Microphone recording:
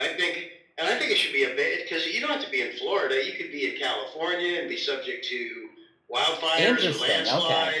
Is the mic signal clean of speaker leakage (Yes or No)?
No